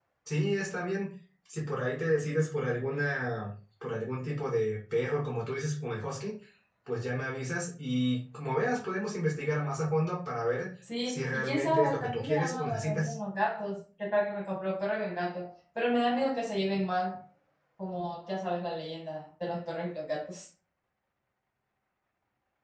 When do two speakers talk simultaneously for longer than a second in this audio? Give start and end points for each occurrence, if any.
11.1-13.1

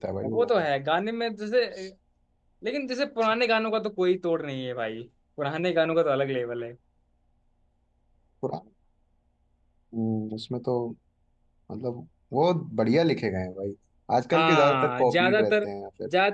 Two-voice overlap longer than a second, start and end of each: 14.3-15.6

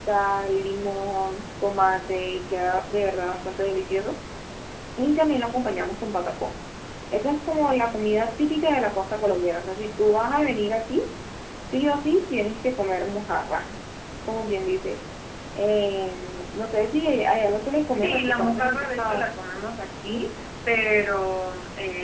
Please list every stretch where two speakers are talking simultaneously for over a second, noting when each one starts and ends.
18.0-19.3

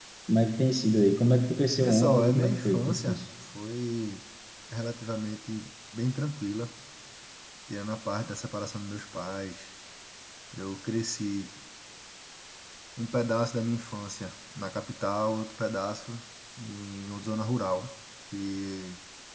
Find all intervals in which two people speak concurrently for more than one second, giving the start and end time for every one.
1.8-3.2

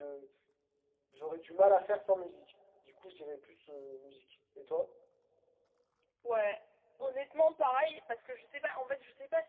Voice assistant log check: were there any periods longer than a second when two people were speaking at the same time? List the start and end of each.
none

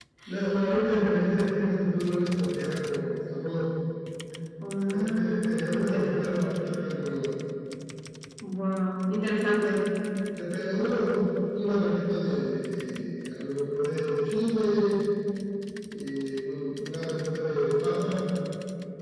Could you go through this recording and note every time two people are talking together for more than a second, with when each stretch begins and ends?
4.9-6.3

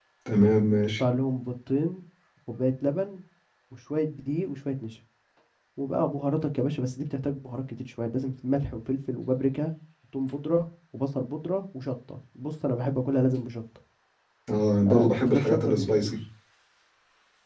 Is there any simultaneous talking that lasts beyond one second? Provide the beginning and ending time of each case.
14.8-16.1

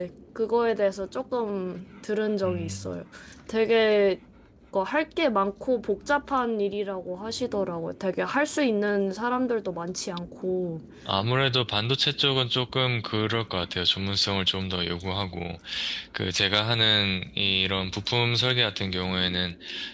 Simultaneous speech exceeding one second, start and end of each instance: none

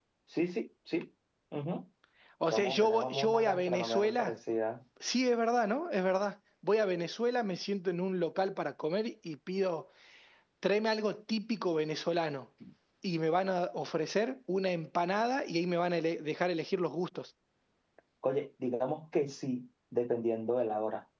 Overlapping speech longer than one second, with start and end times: 2.5-4.3

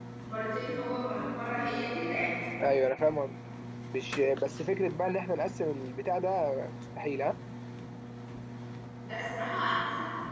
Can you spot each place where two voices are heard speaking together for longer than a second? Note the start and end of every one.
none

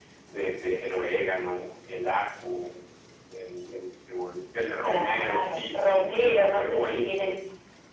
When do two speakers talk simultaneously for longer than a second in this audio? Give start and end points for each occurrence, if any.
4.8-7.4

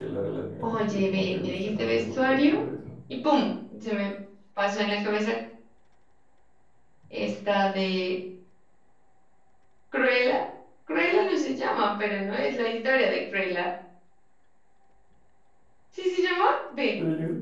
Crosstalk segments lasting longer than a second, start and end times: 0.6-2.6

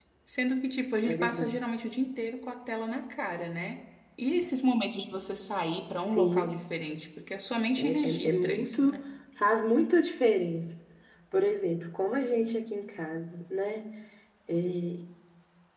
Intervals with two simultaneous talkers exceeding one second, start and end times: 7.8-9.0

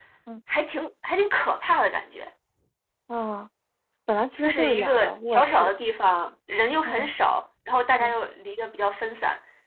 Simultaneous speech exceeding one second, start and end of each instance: 4.4-5.7

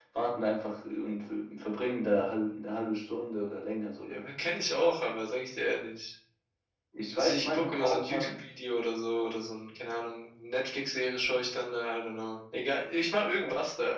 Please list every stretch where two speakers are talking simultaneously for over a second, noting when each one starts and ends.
7.2-8.4

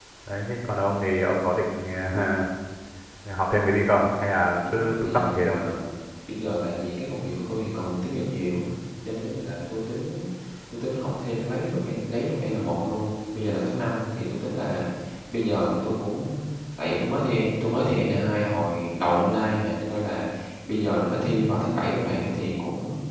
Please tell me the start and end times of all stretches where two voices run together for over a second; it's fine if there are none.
4.4-5.6

